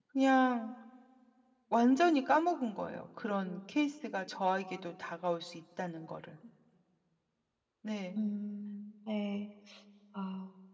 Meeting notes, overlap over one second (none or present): none